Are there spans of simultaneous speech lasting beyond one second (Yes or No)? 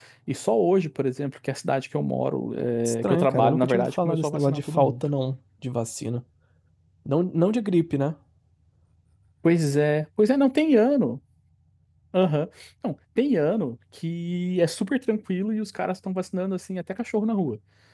Yes